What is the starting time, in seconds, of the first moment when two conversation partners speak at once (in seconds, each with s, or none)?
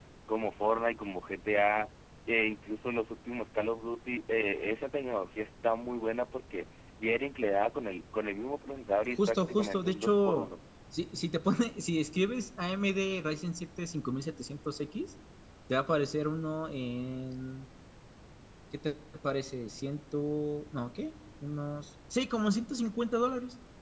9.2 s